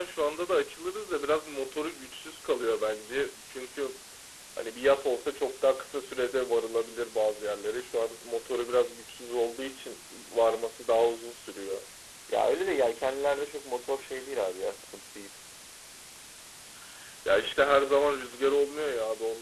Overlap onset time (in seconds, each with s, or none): none